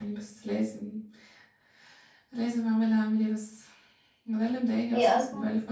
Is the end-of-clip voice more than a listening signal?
No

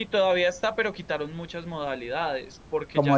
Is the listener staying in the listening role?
No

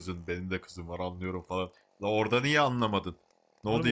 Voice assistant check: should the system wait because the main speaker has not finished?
No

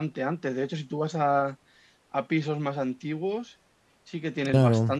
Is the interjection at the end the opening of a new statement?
No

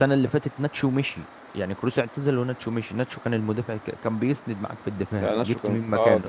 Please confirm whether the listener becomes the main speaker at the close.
Yes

